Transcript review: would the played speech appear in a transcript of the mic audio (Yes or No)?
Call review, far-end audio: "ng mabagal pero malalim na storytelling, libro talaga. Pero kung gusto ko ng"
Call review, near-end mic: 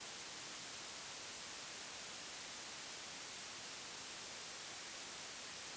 No